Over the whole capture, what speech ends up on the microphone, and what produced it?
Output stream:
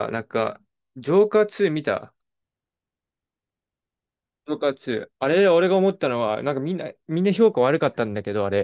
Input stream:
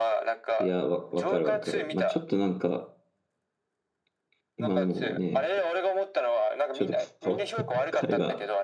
both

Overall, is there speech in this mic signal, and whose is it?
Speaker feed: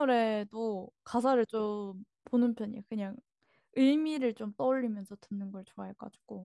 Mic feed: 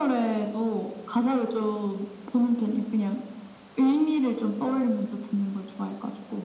echo only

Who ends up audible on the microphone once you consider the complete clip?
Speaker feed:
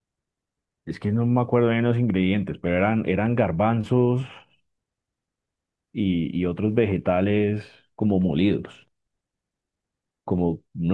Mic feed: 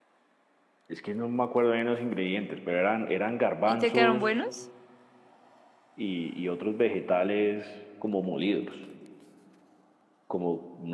both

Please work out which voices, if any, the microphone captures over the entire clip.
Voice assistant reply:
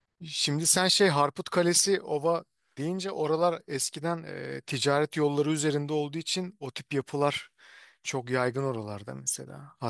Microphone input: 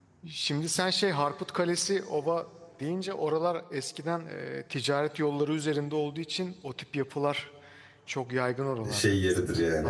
both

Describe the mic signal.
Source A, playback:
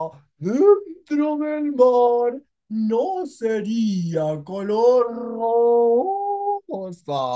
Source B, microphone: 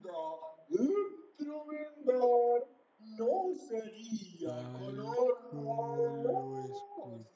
both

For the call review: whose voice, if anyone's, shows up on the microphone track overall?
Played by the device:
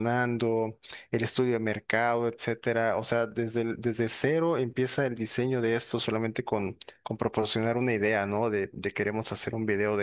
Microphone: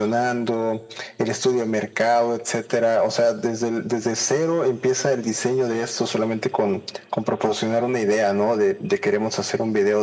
echo only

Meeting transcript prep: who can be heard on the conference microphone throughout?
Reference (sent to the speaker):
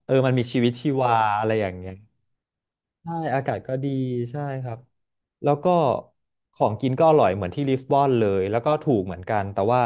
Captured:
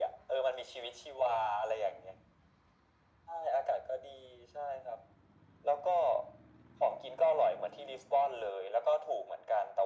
echo only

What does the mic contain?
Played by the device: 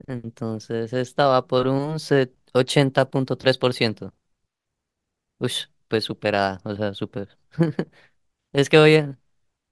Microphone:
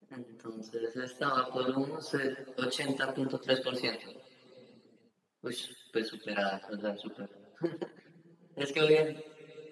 echo only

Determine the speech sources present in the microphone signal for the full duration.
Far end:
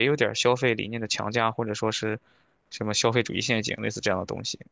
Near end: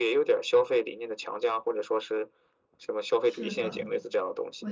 both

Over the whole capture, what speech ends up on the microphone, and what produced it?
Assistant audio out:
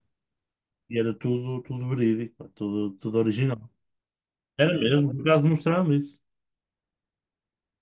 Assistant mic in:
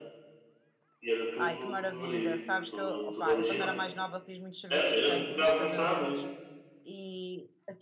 both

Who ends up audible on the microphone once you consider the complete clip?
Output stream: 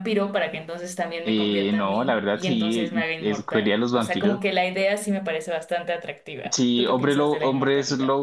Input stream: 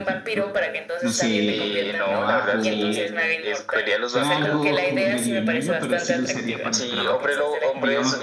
both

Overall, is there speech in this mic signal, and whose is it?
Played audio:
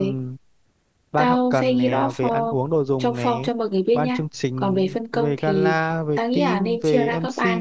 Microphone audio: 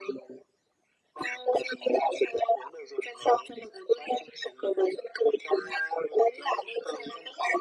echo only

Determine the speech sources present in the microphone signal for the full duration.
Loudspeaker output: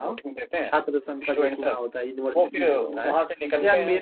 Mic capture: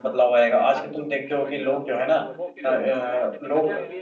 both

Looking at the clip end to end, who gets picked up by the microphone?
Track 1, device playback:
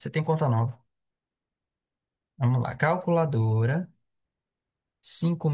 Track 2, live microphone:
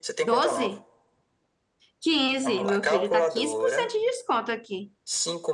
both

